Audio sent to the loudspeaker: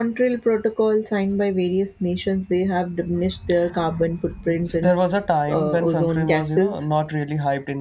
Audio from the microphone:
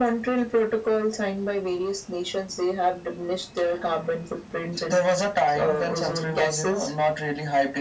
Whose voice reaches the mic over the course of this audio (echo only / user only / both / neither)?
echo only